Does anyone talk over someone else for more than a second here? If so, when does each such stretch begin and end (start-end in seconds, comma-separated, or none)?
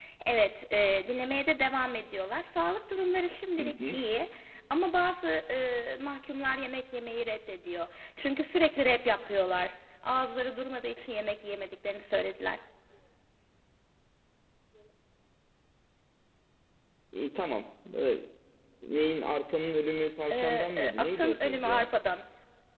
20.3-21.9